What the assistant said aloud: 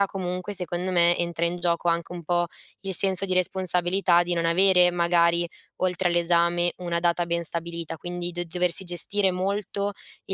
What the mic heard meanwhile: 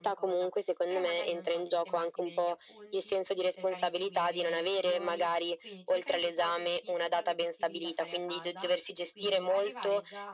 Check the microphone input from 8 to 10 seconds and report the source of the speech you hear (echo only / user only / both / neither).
both